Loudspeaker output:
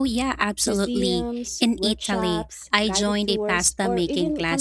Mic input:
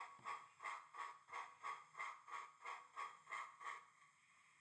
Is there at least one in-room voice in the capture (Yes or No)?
No